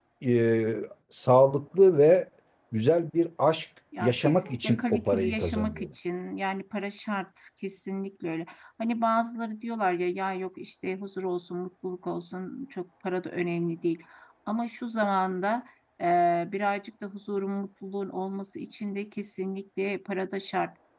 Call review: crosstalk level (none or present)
present